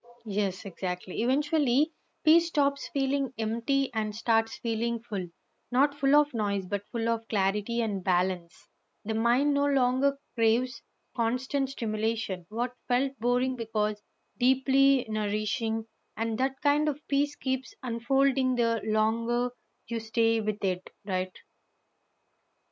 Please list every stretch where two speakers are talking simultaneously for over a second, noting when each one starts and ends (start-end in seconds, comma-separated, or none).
none